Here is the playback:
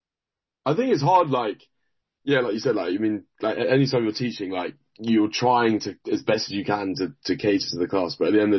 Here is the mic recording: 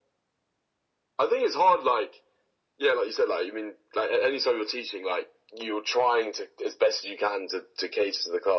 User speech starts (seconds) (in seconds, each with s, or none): none